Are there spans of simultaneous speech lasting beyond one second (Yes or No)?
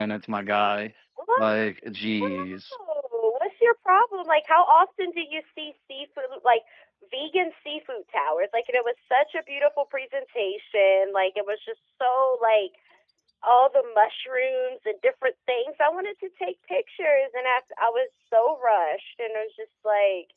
No